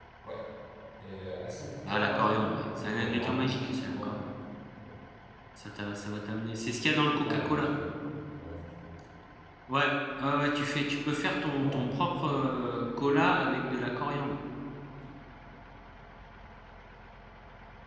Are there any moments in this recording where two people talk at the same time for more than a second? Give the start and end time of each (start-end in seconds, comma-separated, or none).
1.9-4.2